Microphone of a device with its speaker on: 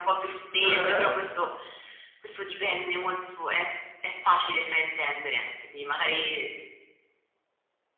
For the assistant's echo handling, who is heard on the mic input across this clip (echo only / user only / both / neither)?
both